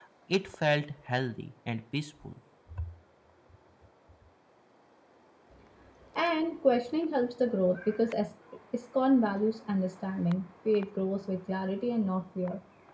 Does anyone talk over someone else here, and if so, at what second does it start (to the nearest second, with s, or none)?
none